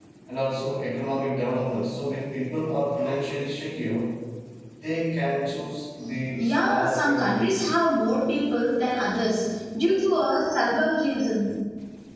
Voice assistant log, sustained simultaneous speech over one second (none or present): present